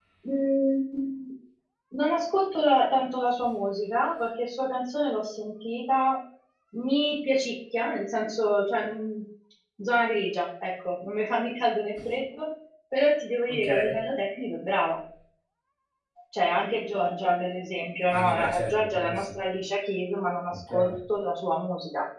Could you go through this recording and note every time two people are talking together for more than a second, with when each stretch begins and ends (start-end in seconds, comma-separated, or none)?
18.1-19.4